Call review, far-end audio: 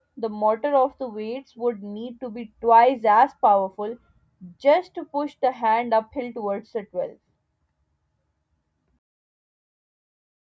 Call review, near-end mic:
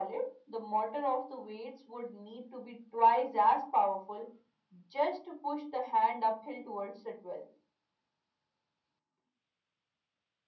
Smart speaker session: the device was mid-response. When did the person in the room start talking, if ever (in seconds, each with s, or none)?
none